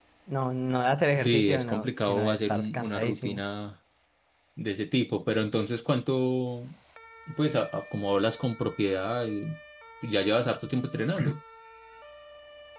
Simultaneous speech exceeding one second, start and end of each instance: 1.2-3.4

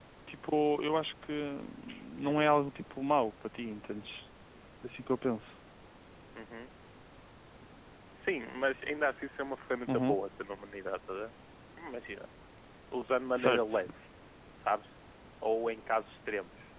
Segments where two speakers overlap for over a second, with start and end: none

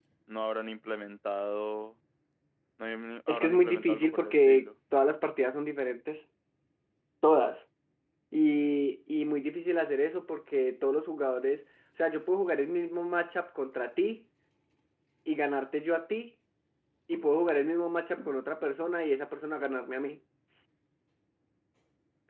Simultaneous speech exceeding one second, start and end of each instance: 3.3-4.7

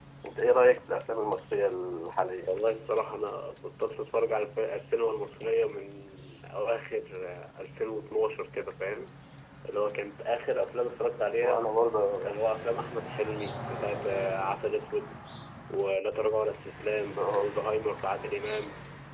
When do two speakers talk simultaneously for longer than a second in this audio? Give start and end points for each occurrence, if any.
none

